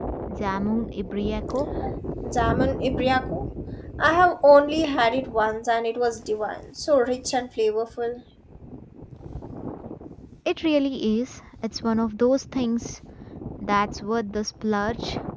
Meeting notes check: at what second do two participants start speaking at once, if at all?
none

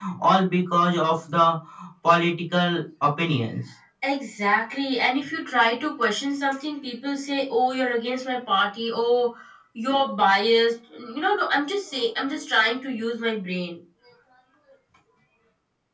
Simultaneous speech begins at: none

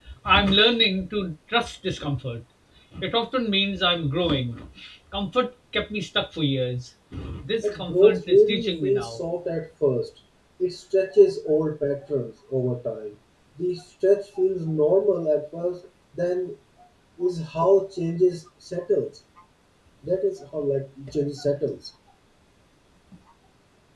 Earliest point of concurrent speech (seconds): 7.6 s

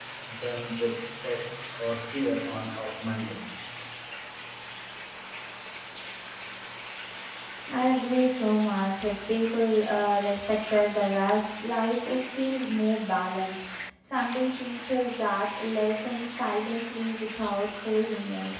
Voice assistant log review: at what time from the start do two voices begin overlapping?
none

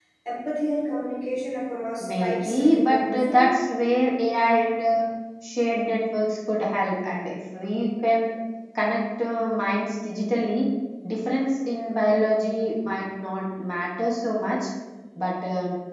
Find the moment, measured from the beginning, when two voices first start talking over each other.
2.0 s

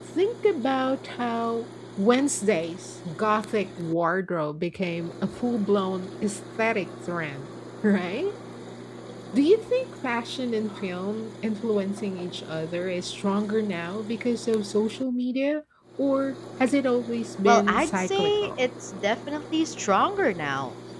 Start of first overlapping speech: 17.4 s

